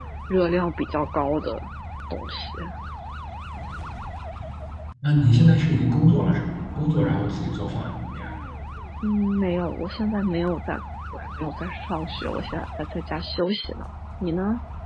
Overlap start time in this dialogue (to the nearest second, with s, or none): none